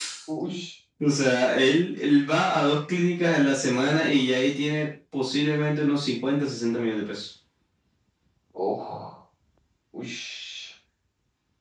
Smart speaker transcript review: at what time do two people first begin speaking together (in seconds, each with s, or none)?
none